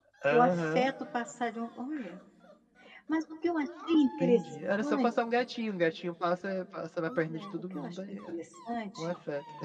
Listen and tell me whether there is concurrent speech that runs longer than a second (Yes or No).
Yes